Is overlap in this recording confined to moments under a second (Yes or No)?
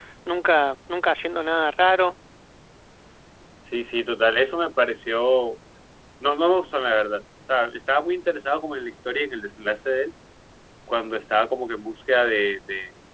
Yes